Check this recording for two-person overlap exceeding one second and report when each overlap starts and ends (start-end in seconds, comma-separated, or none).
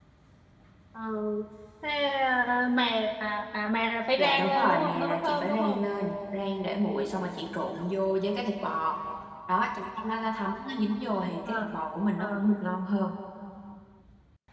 4.2-5.9